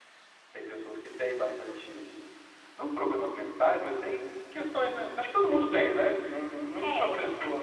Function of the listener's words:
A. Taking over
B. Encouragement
A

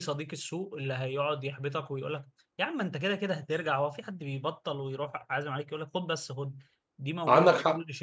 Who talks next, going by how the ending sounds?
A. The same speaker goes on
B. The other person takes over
A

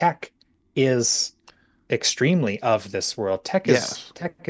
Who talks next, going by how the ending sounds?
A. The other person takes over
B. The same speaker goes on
B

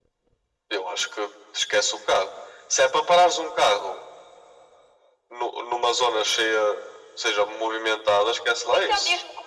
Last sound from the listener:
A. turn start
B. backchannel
A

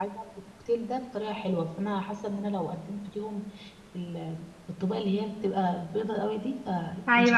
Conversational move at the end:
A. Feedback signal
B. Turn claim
B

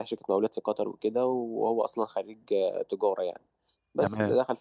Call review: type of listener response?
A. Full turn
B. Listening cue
B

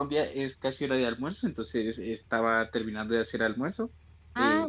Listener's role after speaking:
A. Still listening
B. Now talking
A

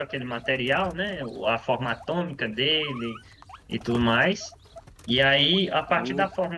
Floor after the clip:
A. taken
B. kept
B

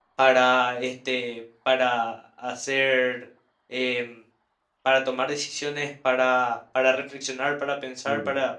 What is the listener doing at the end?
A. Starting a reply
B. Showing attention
B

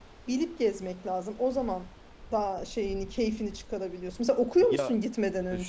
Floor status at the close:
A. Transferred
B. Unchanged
A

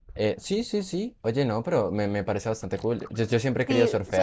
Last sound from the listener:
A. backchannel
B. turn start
B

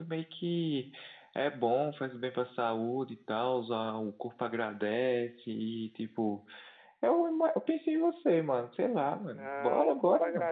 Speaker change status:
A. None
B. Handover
B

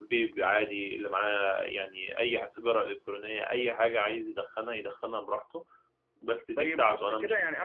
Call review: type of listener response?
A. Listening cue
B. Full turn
B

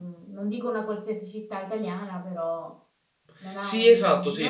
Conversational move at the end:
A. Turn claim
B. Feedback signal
A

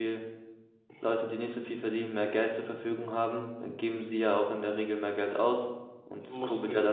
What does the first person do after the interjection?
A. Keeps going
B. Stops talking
B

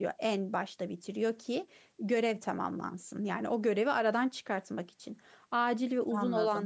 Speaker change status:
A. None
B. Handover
A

